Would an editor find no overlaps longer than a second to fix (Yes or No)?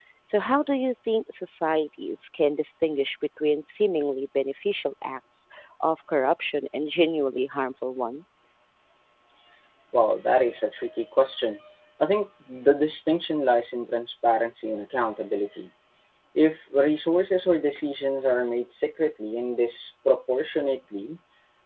Yes